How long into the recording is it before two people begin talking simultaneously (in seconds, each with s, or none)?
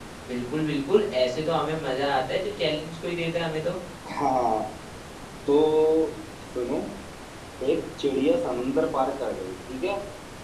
none